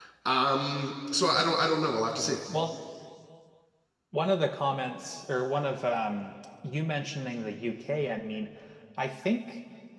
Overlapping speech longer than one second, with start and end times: none

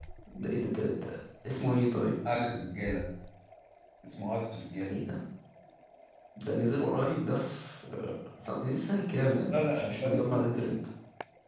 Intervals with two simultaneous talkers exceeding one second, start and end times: 9.5-10.7

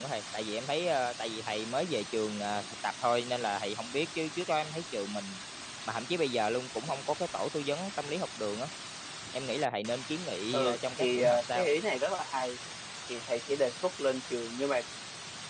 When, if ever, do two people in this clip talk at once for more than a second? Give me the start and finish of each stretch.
10.5-11.8

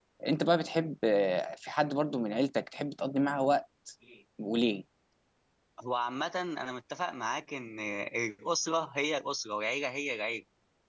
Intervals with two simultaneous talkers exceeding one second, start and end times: none

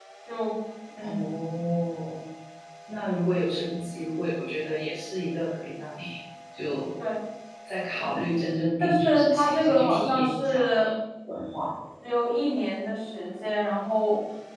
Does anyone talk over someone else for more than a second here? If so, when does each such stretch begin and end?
8.8-10.9

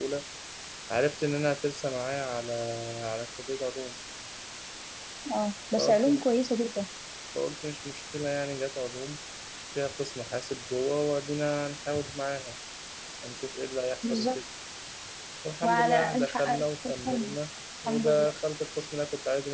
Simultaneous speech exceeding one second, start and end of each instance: 15.6-17.4

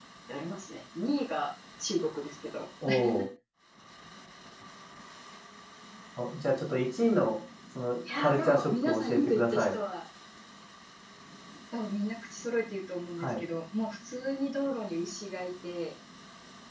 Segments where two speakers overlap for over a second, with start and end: 8.2-9.8

